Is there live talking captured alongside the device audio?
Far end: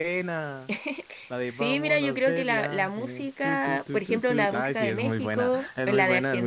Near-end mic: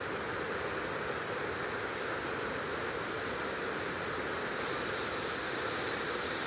No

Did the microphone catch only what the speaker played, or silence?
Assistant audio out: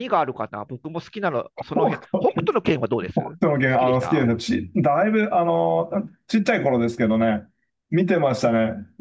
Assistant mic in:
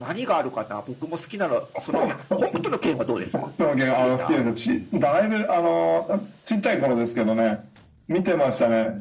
Yes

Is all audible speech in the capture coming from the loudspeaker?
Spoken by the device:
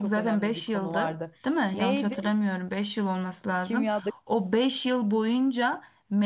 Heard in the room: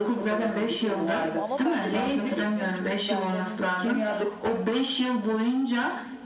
No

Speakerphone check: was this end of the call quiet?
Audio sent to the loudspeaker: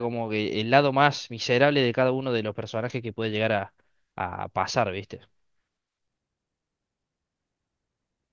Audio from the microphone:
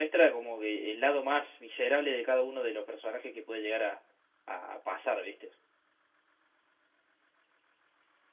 Yes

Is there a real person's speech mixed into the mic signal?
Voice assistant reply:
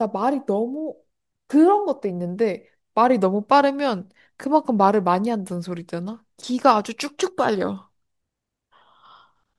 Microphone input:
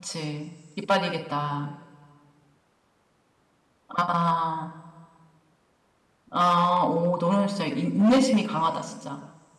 Yes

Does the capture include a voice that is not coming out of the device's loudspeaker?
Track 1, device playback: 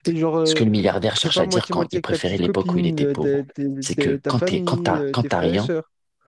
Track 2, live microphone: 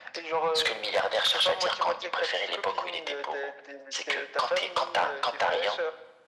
No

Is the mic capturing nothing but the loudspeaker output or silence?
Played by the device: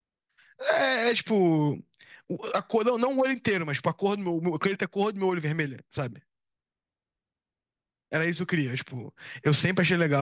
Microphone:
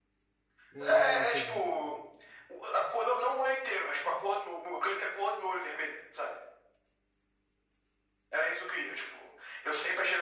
No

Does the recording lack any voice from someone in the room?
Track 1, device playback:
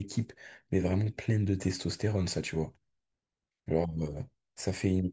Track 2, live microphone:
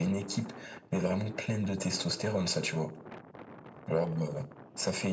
Yes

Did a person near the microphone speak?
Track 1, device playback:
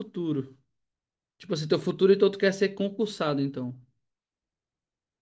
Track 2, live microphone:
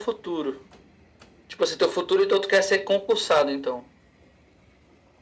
No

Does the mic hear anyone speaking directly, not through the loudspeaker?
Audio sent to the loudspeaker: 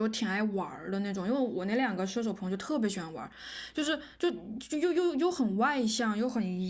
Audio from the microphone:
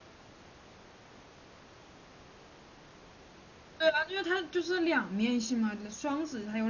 Yes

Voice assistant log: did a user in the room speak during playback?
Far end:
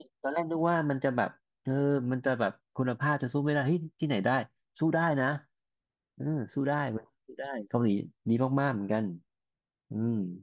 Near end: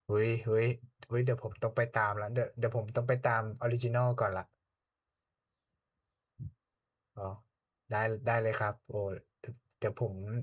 Yes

